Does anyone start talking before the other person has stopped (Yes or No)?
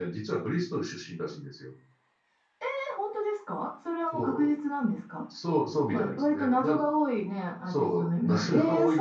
Yes